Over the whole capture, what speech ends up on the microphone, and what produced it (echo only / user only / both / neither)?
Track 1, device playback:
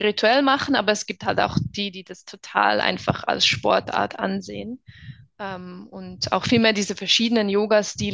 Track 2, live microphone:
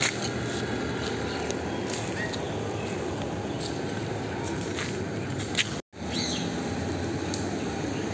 neither